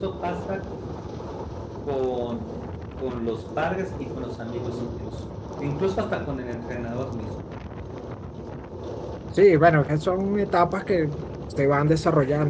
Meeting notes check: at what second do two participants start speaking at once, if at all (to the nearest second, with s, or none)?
none